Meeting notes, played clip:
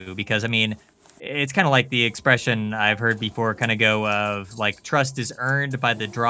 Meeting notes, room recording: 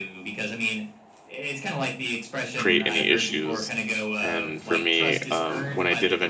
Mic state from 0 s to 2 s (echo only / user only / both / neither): echo only